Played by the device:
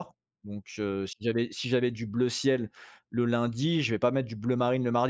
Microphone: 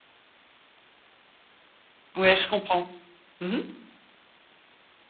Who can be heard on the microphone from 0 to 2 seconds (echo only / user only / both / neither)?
neither